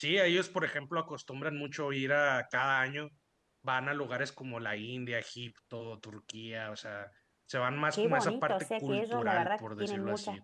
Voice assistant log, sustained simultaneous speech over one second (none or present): present